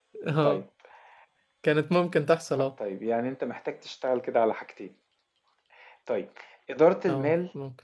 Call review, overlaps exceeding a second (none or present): none